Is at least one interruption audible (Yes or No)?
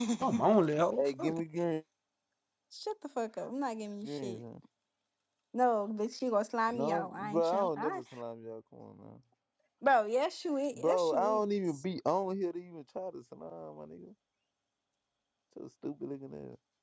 Yes